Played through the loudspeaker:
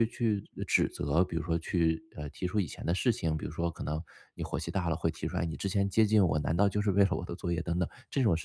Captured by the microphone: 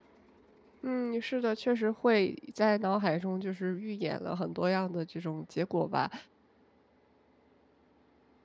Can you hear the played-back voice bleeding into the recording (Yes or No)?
No